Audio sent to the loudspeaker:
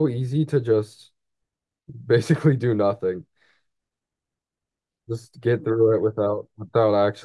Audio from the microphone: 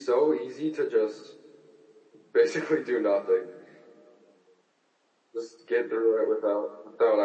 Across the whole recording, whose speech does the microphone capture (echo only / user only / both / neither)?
echo only